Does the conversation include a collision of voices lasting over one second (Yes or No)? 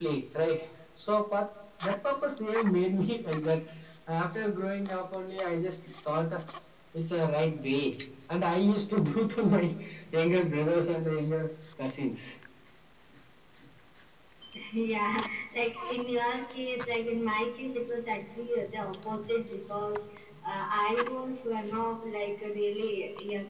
No